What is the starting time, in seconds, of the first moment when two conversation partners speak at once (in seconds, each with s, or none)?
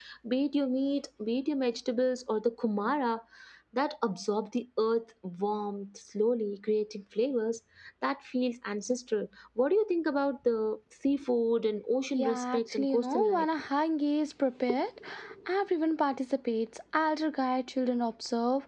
12.1 s